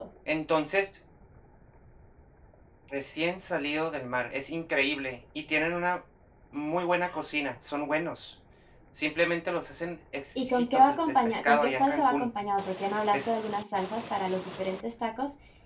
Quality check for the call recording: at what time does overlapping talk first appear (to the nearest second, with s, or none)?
10 s